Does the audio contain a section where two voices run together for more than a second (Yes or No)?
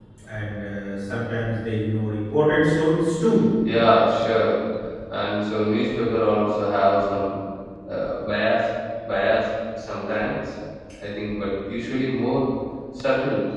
No